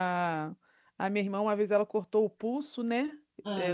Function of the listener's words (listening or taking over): listening